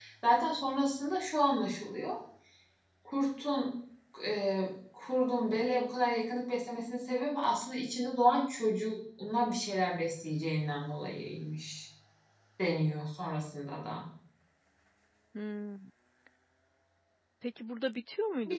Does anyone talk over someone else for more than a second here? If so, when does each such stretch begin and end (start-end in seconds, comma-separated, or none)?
none